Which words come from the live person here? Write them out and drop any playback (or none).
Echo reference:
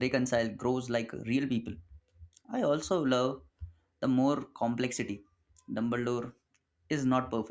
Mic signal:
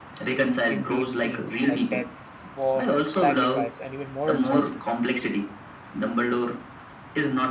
in deep themes like death, war, sacrifice, and even moral choices.